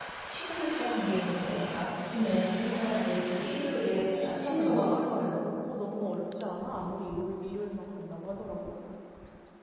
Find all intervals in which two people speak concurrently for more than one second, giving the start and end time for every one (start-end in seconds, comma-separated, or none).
3.9-5.3